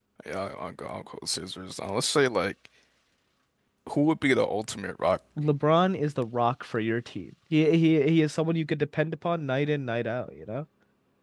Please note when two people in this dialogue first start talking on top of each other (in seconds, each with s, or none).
none